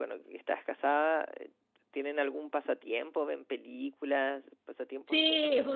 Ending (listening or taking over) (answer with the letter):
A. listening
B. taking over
B